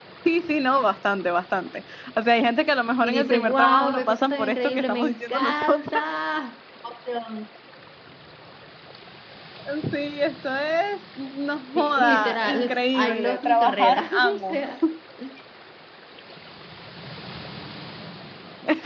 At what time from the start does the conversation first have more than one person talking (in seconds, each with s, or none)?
3.0 s